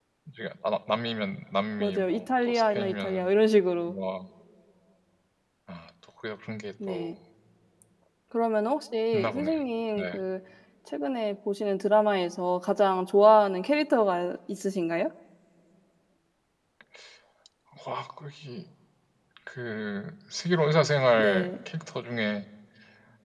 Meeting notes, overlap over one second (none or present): present